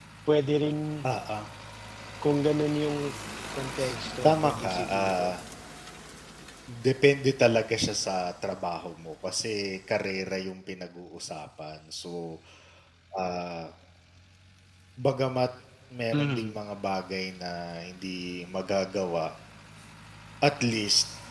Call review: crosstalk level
present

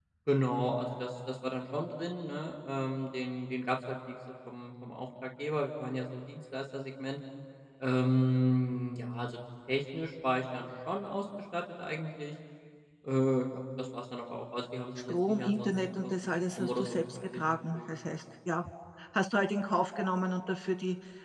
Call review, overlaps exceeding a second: present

